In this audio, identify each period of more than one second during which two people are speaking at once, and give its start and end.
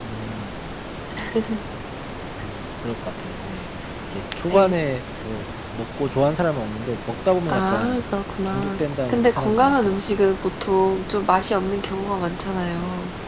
8.4-10.3

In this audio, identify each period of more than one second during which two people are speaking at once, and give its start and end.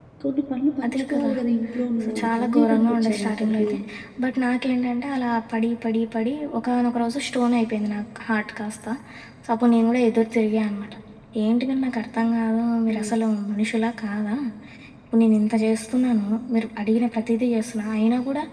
2.0-3.7

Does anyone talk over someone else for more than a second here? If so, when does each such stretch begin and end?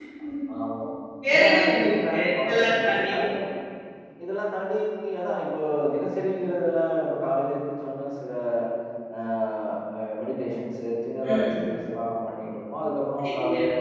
1.3-3.1

